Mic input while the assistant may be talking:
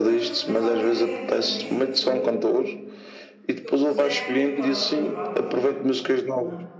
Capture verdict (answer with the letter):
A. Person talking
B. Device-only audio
A